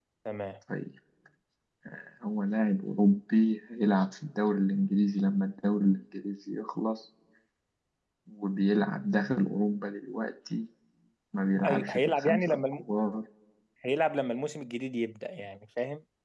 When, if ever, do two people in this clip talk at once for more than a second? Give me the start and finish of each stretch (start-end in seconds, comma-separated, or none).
11.6-12.8